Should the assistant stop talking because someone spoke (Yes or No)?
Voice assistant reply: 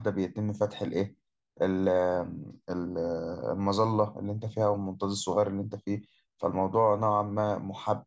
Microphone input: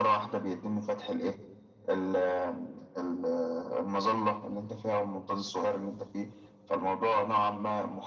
No